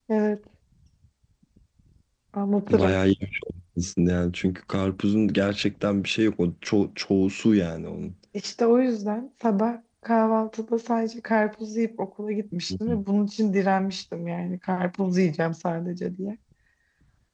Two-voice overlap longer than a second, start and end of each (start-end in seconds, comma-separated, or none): none